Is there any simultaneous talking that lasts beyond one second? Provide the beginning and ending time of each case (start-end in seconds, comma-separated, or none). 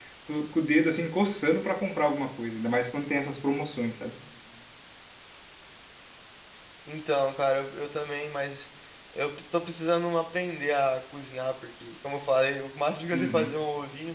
none